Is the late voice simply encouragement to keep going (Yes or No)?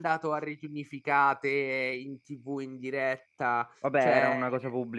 No